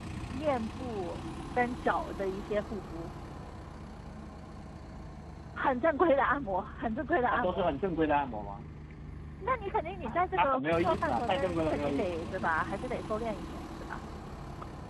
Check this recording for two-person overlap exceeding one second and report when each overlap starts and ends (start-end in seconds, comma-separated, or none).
10.1-12.5